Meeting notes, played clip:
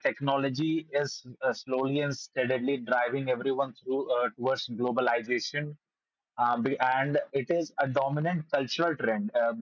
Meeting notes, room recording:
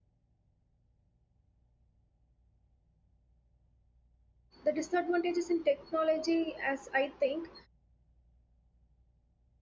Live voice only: the disadvantages in technology as i think

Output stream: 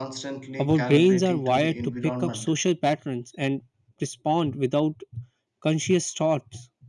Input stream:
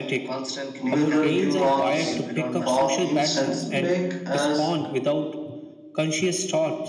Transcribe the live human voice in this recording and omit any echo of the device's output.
Mirror neurons, for instance, make us

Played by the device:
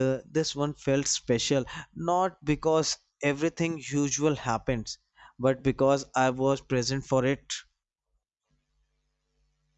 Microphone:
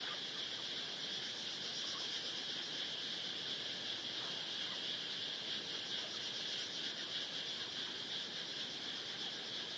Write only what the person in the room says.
none

